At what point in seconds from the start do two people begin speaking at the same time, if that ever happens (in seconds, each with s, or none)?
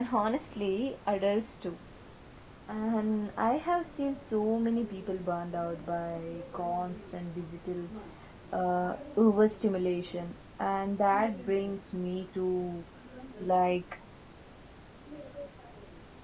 none